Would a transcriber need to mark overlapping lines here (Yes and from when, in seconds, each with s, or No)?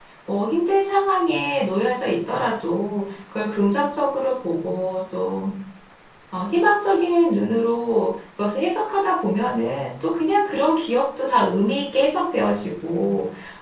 No